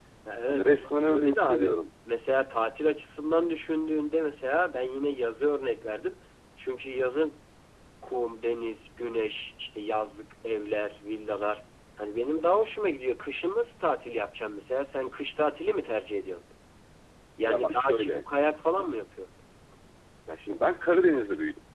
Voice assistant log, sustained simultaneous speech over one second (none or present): present